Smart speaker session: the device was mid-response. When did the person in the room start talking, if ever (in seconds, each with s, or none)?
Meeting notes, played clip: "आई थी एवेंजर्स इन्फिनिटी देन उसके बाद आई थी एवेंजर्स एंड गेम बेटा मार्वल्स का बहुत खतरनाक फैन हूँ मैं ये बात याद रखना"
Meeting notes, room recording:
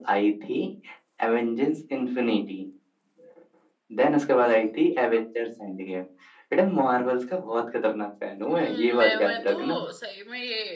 8.5 s